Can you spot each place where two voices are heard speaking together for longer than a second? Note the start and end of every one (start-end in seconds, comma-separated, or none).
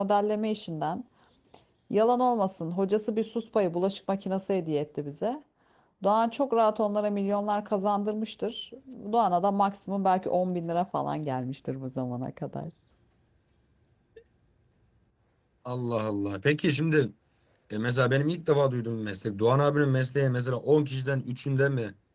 none